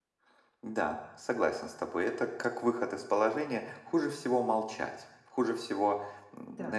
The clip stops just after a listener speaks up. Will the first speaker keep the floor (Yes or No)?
Yes